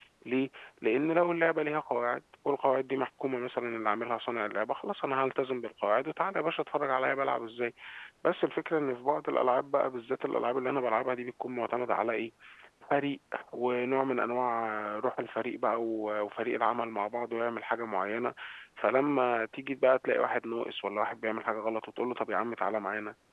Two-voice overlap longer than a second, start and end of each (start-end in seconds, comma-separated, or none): none